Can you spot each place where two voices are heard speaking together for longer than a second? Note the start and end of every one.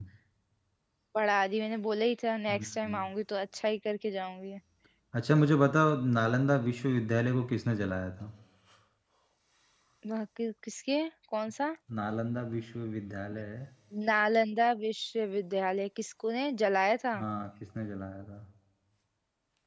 none

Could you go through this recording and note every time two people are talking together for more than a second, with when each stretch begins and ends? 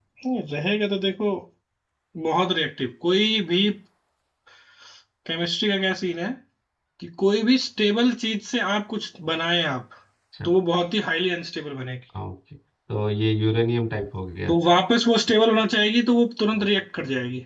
none

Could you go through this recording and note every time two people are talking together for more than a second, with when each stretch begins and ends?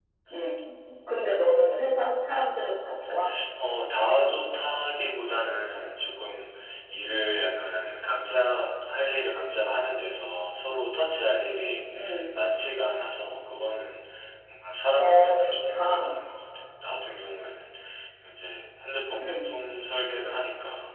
15.0-16.2

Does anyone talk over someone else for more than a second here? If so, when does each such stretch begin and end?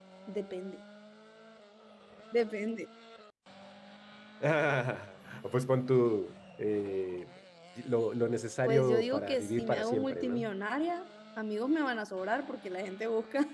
8.7-10.5

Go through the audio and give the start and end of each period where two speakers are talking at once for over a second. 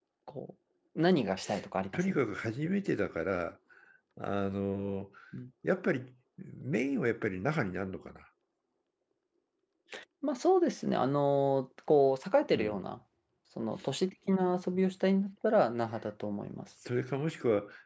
none

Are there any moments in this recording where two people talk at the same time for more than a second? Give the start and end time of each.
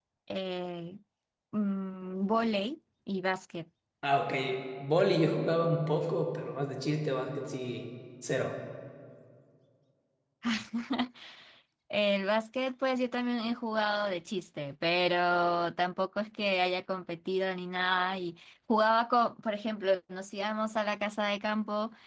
none

